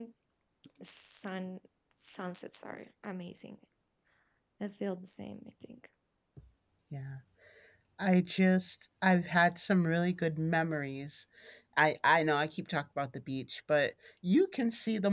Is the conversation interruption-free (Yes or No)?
Yes